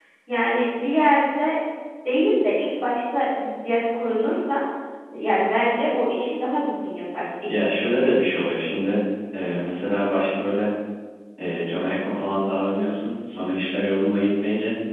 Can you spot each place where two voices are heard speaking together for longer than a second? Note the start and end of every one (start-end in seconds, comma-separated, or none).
7.5-8.8